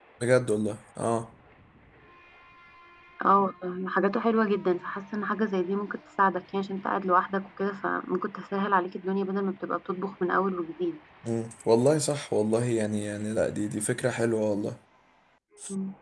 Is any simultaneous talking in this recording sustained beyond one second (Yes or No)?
No